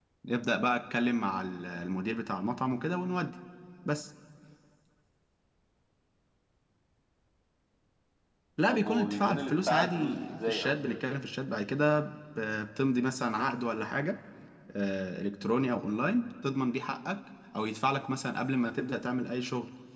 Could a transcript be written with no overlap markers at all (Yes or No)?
No